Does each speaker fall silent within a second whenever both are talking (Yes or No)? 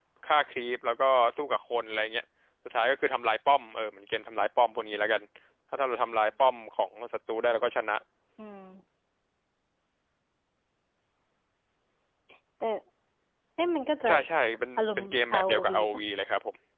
No